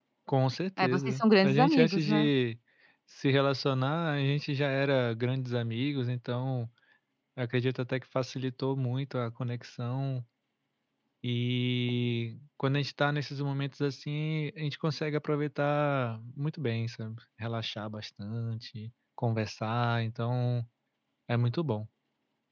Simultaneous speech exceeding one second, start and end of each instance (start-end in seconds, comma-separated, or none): 0.8-2.3